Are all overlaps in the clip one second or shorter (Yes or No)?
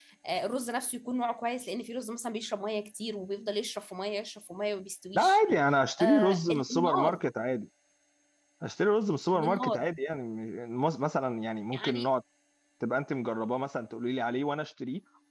No